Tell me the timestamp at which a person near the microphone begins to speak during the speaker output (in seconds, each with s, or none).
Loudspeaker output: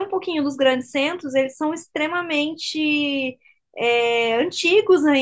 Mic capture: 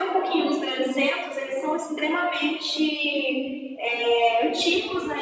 none